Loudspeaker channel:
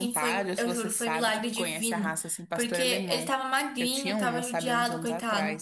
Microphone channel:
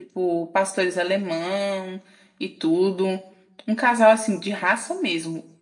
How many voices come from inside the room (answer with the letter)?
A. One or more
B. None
A